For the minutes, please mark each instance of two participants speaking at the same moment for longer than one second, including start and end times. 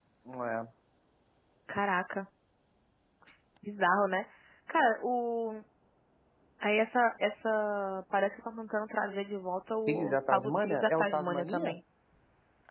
9.9-11.8

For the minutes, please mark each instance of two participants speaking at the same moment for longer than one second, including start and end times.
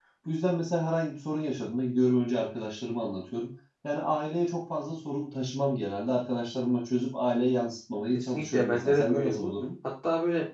8.1-9.5

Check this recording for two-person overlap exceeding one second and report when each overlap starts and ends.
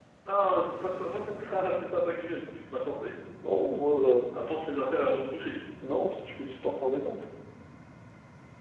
none

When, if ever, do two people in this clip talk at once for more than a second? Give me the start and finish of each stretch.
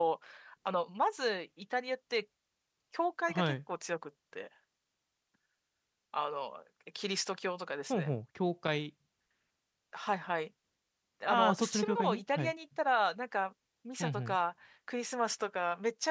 11.3-12.5

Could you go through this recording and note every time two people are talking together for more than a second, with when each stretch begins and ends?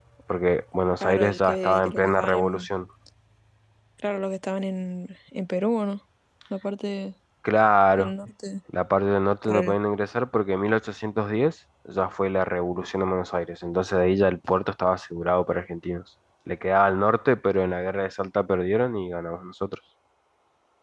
1.0-2.7

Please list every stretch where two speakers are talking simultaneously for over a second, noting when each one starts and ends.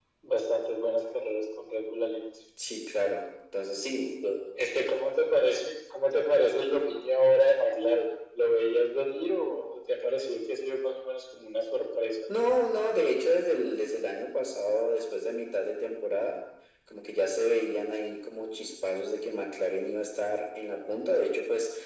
none

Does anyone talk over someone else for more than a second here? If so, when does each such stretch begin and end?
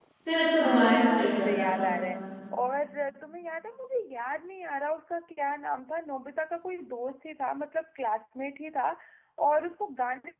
0.6-1.9

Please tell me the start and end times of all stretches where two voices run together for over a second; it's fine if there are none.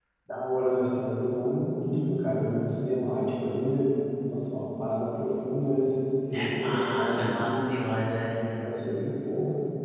6.3-8.0

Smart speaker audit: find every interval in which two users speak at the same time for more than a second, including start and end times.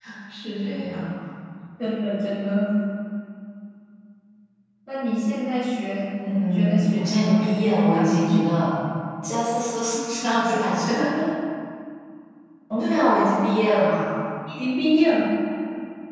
6.2-7.5

